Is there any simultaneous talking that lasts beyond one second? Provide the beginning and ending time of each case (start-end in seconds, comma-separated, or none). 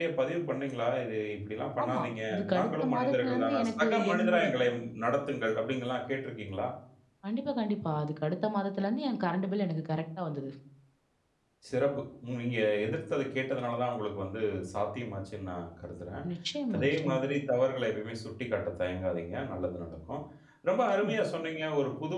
1.8-4.4